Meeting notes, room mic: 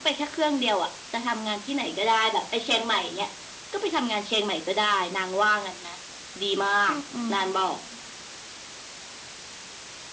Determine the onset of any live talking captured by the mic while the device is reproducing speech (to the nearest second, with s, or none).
7 s